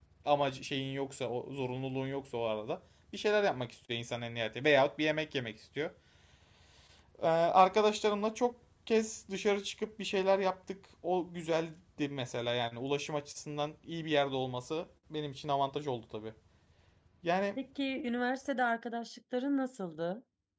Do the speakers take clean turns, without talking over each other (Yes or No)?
Yes